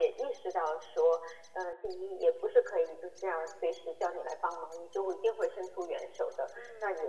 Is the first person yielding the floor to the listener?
No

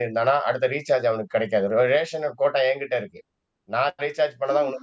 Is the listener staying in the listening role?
No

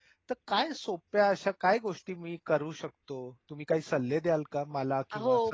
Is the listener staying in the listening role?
No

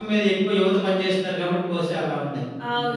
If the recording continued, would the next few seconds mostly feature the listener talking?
Yes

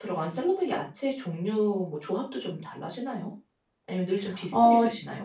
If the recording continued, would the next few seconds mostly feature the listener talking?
Yes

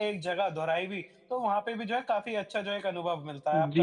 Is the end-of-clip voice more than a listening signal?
Yes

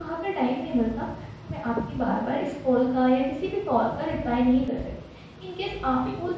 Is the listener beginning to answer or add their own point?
No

